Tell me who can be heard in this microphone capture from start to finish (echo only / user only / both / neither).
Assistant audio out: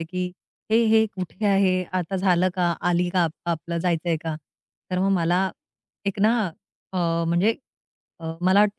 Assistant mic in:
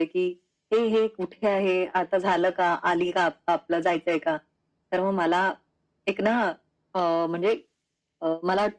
echo only